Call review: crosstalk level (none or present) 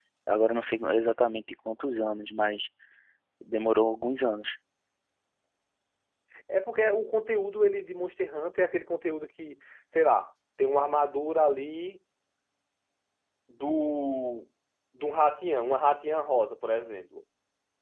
none